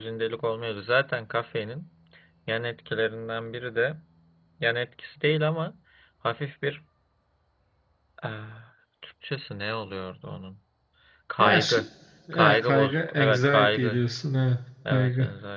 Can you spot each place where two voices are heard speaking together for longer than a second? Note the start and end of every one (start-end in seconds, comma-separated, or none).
12.3-14.0